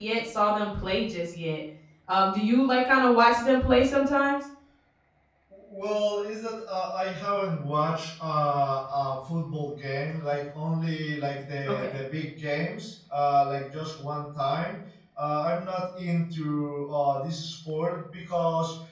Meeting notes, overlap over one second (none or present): none